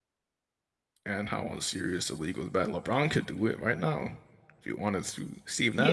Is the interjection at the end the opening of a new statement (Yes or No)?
Yes